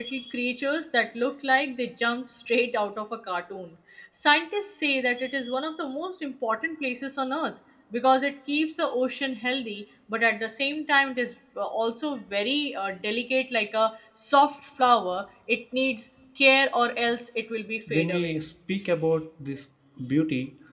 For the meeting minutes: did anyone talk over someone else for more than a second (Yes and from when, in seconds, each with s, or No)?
No